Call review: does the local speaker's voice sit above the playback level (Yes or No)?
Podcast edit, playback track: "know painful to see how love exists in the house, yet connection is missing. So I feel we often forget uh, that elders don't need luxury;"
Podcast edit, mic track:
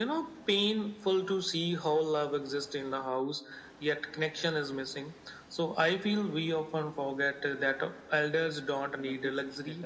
No